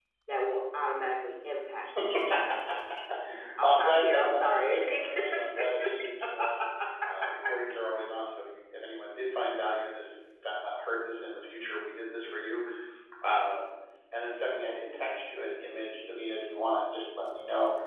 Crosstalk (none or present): present